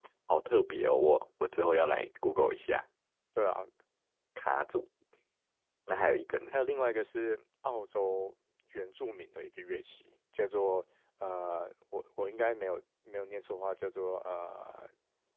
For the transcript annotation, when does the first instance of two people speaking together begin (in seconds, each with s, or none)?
none